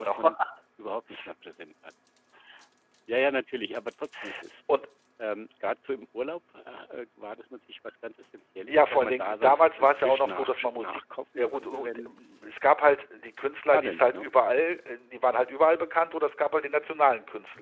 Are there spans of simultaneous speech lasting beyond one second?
Yes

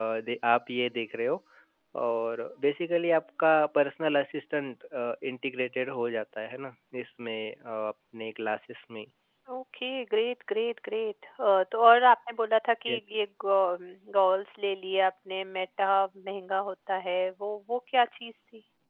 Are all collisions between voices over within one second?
Yes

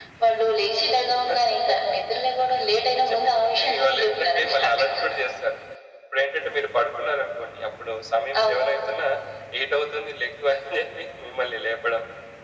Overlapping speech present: Yes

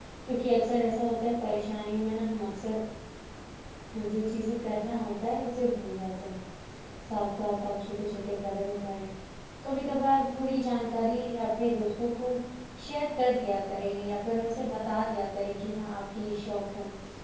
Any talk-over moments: No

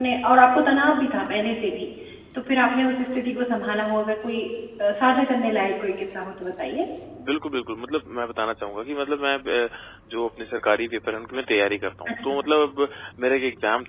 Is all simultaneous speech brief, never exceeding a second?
Yes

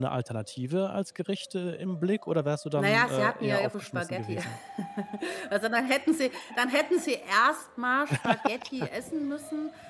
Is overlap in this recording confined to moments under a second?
No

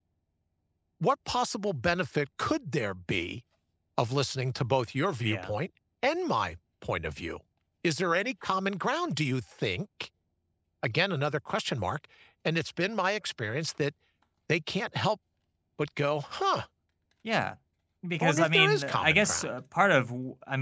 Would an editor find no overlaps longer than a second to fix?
No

